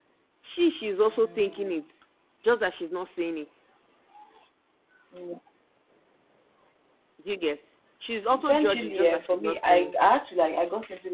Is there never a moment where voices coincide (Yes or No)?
No